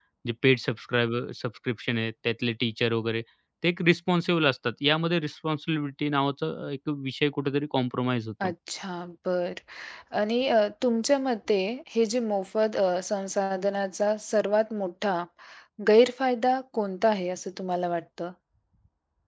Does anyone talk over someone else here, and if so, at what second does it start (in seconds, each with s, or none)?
none